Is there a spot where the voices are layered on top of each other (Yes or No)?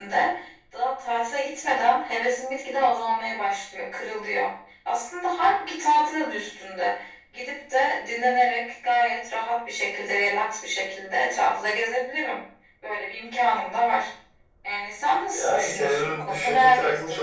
Yes